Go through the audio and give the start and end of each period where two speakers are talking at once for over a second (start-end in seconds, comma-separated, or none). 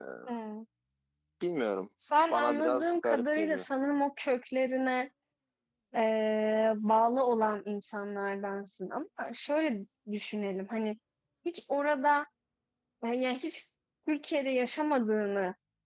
2.3-3.6